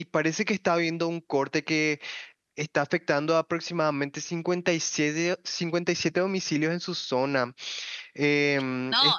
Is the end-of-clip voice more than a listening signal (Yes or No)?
Yes